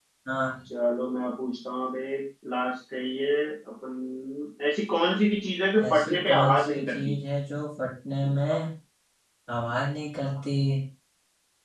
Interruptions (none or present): present